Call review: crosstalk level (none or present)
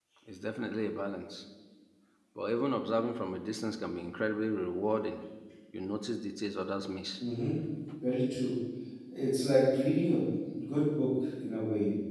none